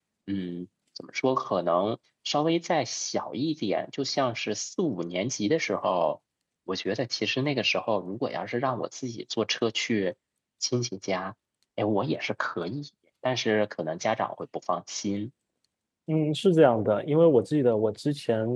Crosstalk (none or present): none